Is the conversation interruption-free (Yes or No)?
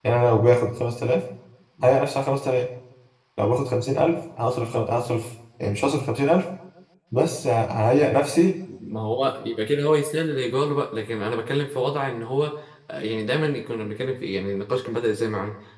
Yes